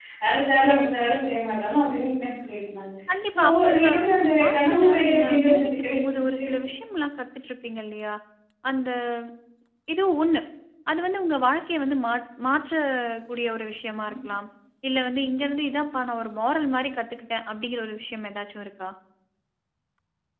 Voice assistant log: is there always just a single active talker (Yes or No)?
No